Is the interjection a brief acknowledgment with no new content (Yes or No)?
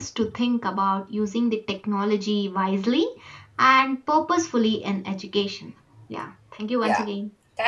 No